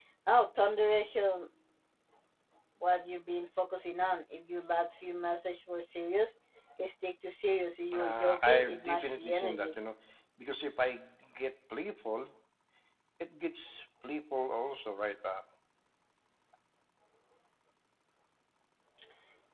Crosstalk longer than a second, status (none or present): present